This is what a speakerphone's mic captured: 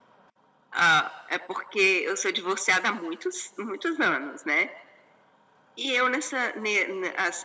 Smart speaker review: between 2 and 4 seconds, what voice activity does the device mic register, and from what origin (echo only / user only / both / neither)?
echo only